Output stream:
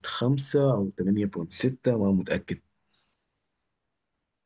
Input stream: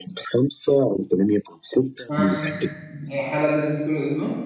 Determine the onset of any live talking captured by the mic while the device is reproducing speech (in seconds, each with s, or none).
2.1 s